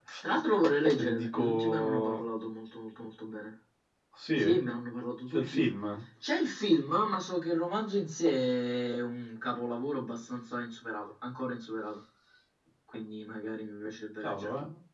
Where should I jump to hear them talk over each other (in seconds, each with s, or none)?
1.0 s